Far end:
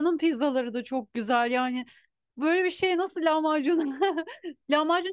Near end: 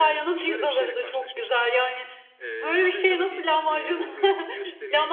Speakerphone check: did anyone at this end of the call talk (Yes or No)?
Yes